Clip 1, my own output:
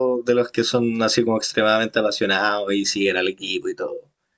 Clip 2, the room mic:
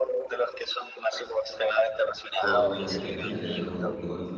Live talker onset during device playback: 2 s

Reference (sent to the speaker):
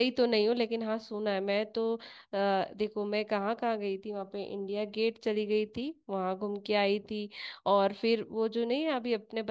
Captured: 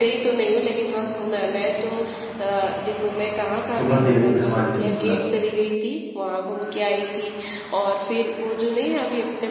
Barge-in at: 4 s

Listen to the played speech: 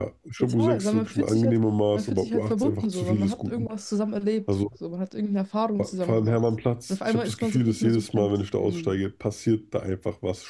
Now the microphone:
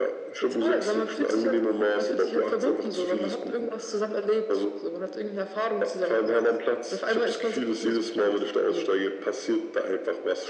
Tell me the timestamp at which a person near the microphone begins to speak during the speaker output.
none

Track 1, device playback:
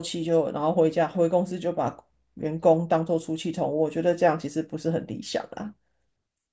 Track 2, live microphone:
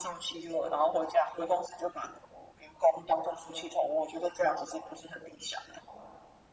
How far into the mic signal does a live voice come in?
none

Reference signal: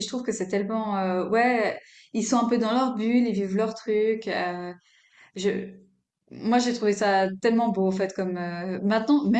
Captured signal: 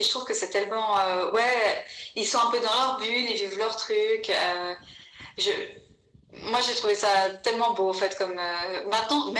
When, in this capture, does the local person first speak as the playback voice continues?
none

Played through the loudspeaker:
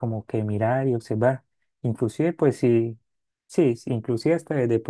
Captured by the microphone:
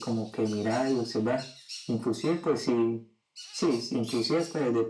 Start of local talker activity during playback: none

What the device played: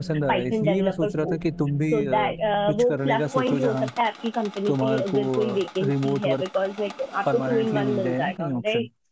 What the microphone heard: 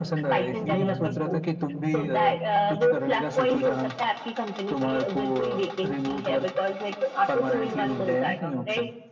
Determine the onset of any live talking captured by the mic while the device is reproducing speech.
1 s

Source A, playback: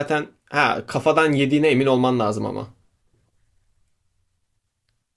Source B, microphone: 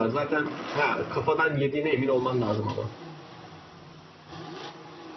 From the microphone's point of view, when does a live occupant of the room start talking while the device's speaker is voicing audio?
none

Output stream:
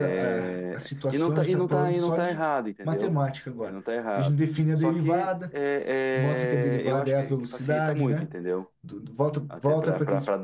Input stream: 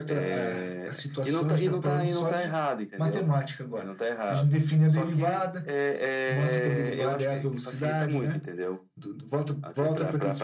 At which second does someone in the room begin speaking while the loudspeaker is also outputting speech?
none

